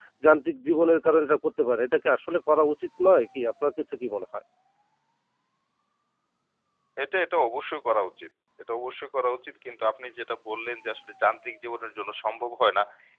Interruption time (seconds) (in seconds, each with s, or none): none